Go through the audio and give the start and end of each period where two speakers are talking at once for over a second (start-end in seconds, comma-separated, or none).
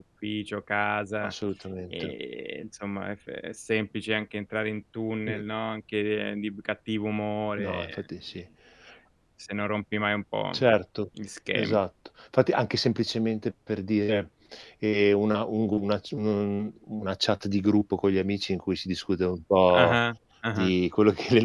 none